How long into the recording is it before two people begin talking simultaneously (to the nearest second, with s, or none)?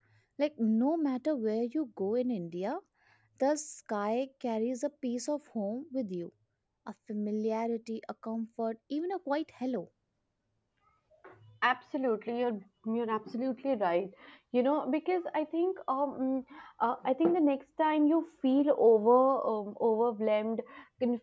none